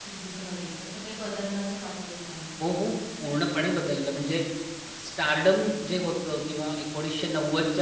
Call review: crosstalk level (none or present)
none